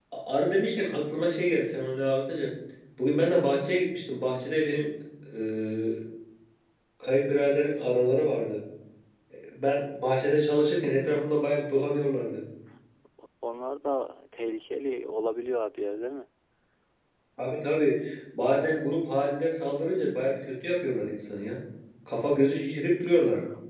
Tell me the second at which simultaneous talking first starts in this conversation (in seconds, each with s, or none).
none